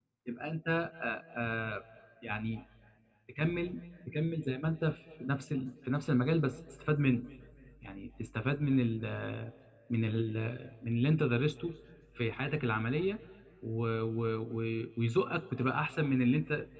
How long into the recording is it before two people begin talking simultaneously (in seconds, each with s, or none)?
none